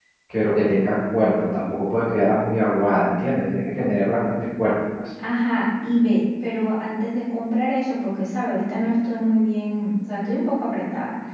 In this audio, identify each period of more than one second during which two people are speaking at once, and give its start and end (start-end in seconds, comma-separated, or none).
none